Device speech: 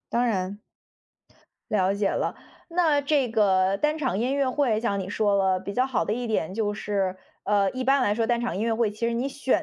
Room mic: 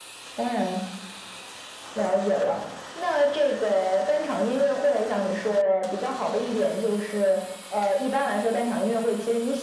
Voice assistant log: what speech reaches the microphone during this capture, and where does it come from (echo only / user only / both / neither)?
echo only